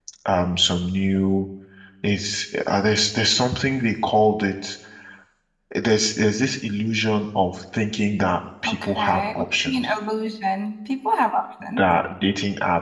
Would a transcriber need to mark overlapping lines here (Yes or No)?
Yes